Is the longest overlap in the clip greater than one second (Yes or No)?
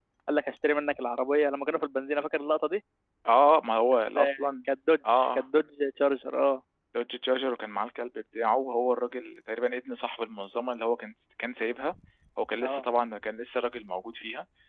No